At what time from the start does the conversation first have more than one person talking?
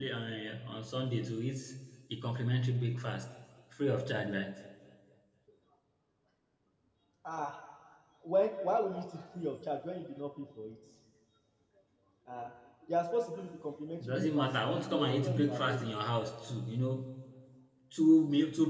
14.0 s

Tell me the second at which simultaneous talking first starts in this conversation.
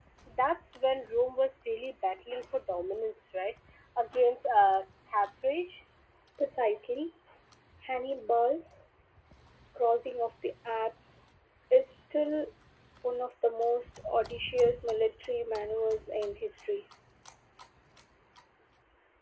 none

